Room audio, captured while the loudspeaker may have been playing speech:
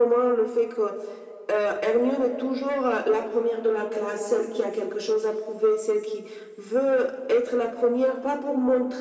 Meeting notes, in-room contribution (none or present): none